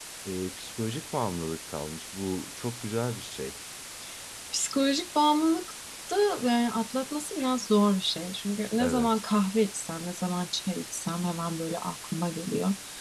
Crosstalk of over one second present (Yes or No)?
No